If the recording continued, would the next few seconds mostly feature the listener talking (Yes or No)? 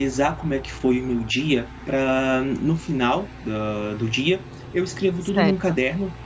No